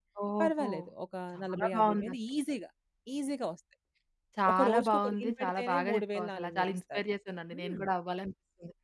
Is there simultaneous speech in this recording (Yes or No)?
Yes